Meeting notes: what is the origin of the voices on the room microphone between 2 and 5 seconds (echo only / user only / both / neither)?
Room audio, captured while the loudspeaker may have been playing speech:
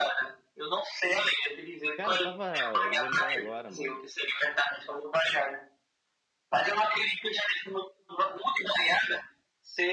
both